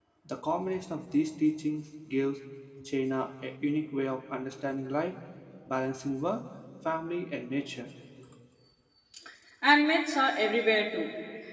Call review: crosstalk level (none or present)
none